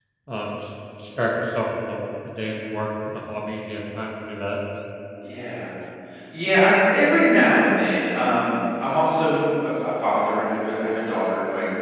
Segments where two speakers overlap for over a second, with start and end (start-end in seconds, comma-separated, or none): none